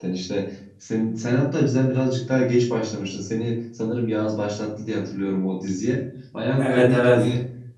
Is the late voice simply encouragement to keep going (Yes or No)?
Yes